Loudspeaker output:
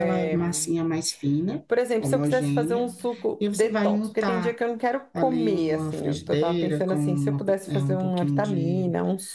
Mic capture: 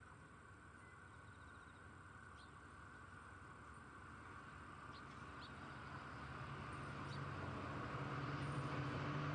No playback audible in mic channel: Yes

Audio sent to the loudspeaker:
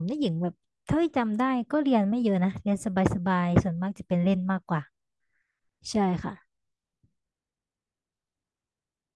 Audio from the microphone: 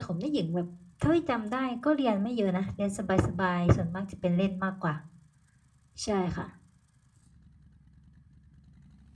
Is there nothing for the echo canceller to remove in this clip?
No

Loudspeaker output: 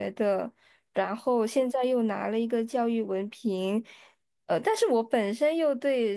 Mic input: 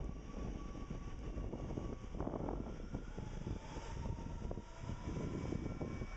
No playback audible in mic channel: Yes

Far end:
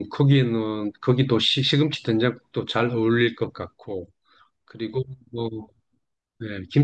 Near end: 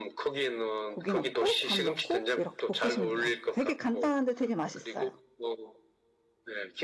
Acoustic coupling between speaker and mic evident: Yes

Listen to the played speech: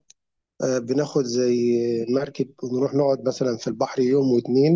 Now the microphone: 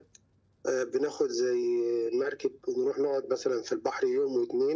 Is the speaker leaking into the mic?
Yes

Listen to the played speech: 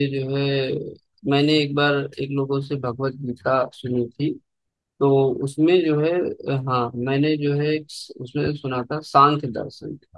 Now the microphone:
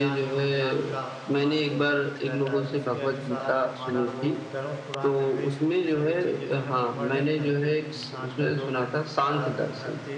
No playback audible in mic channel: No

